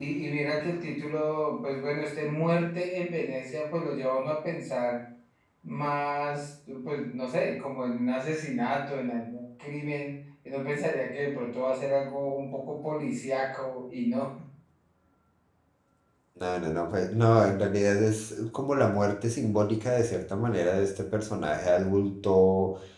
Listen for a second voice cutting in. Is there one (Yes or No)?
No